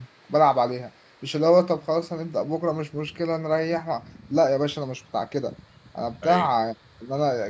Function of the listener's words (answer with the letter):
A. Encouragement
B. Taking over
A